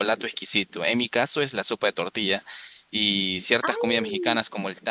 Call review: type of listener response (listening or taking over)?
listening